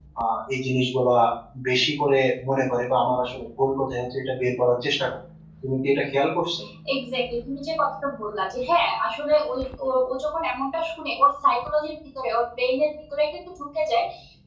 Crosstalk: none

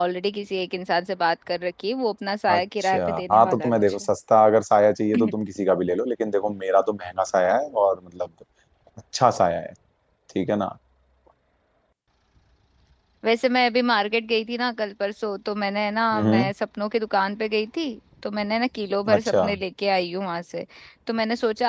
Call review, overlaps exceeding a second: present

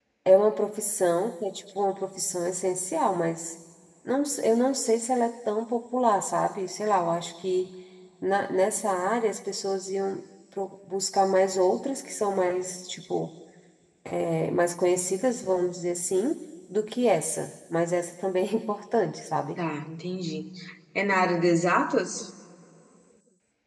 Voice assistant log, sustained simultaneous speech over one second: none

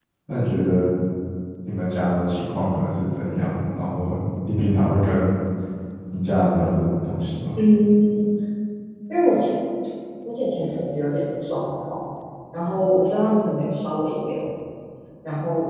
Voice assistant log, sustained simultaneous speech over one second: none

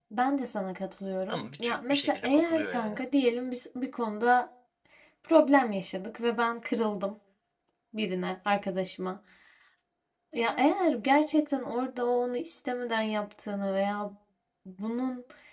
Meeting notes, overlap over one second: present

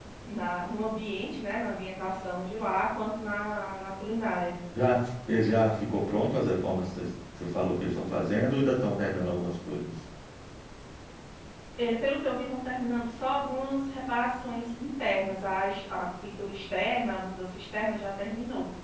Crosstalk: none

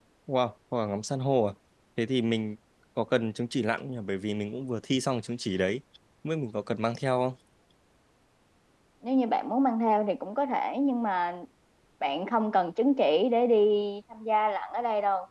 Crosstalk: none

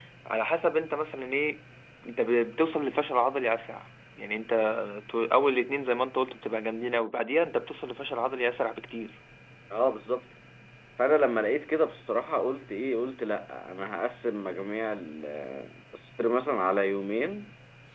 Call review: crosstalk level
none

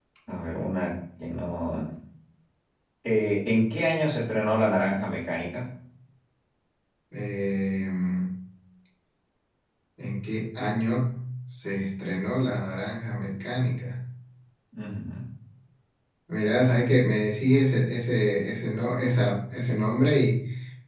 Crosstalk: none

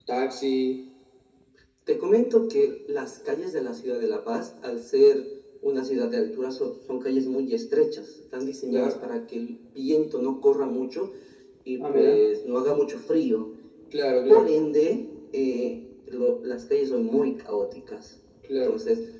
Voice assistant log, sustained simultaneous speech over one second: none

